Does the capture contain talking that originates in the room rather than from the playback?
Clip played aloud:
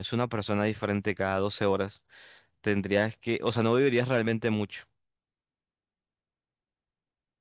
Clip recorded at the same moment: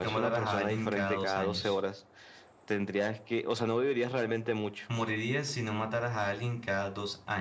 Yes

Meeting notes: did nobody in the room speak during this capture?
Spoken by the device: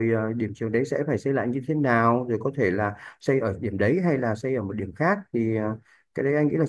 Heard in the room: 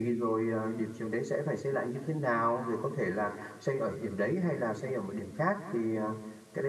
Yes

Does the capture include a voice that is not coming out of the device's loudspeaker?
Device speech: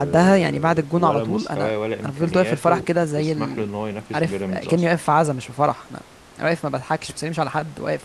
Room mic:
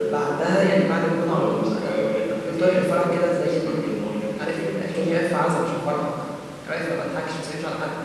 No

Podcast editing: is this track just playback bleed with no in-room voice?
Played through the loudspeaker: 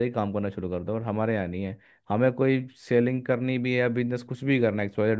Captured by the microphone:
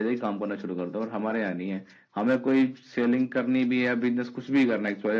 Yes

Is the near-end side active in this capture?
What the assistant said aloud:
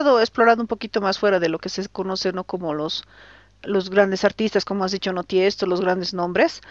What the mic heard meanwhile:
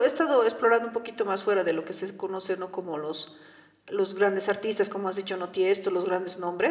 No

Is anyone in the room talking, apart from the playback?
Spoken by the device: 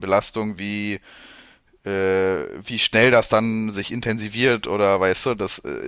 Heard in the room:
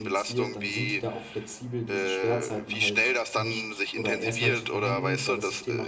Yes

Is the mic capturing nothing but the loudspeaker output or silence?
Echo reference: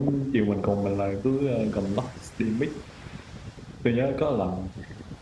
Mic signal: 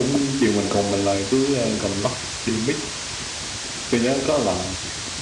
Yes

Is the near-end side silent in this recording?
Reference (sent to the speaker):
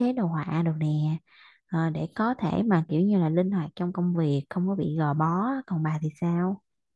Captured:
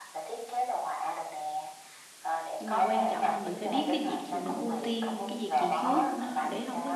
No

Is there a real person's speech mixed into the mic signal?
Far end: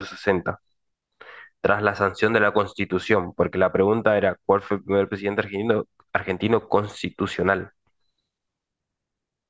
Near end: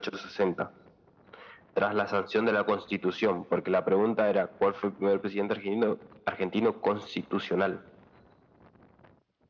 No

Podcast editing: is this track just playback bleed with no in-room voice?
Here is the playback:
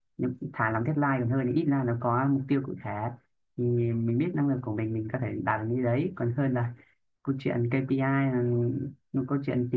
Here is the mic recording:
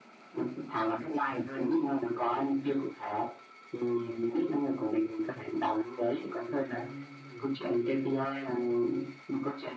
No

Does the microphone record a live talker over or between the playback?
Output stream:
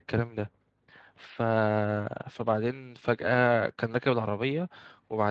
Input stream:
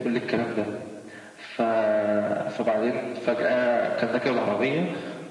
No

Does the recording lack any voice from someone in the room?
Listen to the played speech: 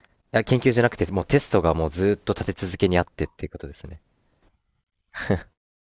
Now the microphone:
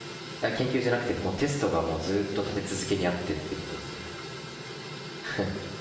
Yes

